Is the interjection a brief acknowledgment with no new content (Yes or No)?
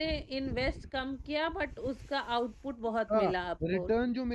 No